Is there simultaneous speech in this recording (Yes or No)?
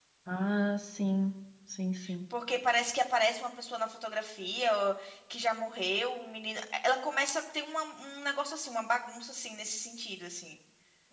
No